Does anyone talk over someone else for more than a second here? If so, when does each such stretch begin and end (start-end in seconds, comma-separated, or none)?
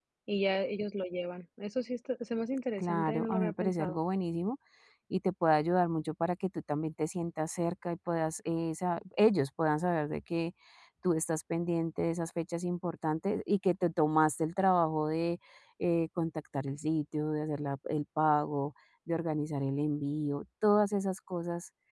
2.8-4.0